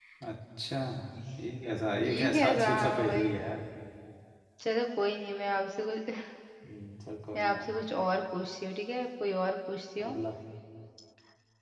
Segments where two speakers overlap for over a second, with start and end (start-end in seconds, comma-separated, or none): 2.0-3.3